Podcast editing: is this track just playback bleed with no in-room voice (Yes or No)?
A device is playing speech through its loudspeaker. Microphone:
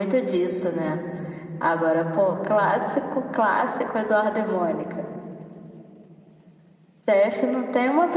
Yes